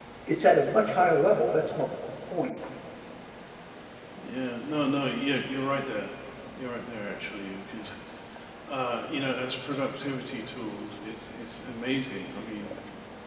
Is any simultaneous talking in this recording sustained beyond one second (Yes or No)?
No